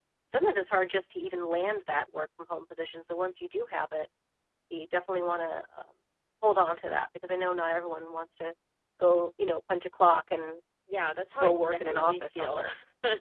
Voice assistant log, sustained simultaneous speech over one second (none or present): present